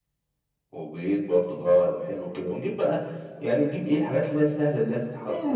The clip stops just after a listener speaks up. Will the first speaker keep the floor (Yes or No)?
No